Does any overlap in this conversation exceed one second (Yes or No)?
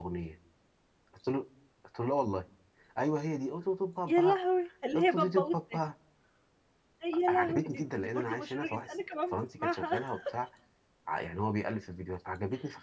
Yes